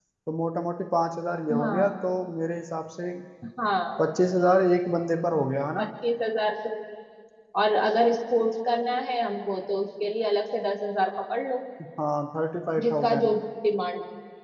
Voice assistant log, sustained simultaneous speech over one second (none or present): none